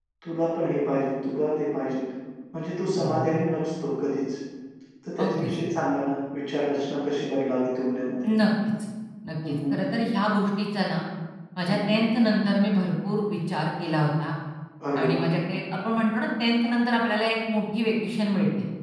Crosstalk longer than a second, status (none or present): none